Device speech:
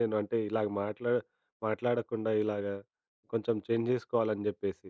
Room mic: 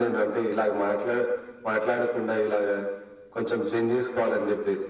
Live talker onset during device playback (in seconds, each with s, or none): none